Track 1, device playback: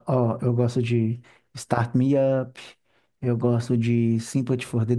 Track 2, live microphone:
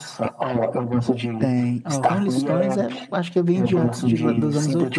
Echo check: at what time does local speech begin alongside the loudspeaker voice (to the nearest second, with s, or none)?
1 s